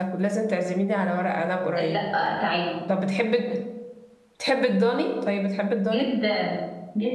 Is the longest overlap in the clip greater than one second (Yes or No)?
No